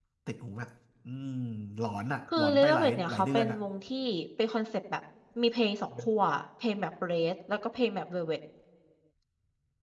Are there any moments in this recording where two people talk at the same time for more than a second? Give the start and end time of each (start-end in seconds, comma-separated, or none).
2.4-3.6